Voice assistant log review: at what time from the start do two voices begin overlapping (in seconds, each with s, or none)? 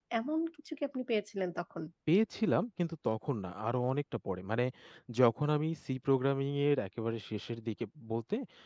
none